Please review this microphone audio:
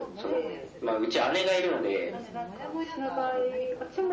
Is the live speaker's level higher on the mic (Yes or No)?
No